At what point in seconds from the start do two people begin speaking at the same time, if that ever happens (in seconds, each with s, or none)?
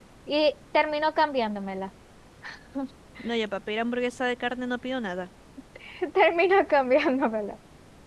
none